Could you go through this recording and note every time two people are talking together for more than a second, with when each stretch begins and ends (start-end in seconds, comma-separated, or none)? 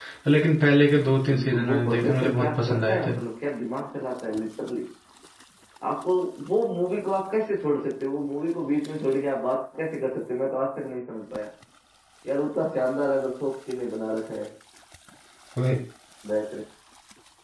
1.3-3.0